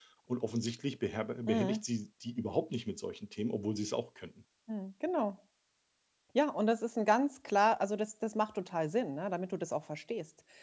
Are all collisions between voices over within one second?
Yes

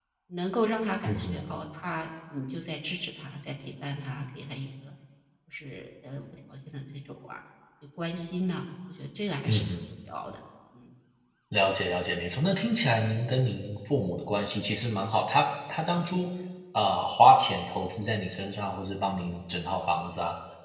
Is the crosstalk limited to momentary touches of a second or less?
Yes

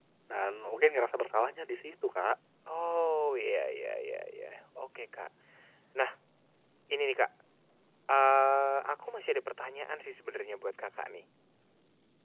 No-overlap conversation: Yes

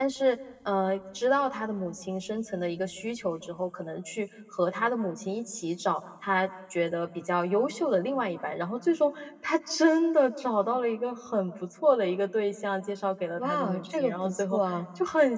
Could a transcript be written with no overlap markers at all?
No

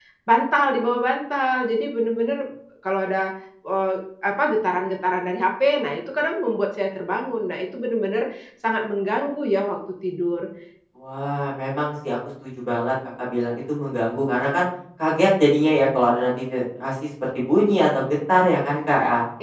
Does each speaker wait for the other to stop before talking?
Yes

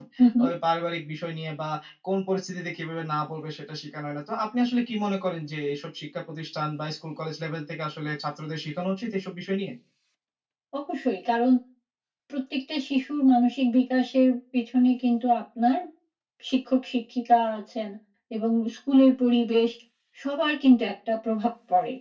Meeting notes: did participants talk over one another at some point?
No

